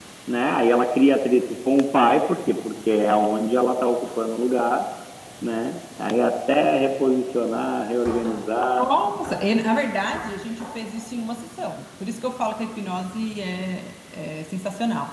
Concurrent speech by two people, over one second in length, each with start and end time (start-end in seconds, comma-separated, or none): none